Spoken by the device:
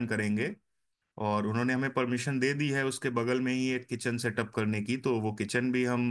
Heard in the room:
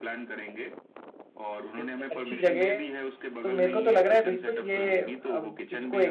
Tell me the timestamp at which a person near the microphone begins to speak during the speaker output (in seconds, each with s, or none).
1.8 s